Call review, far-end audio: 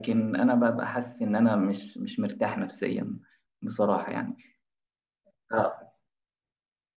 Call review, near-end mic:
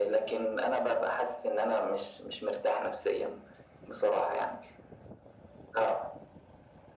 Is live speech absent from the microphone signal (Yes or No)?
Yes